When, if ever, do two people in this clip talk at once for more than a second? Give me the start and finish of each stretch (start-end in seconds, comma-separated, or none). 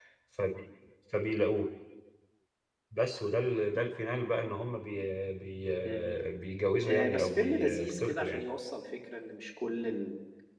6.8-8.4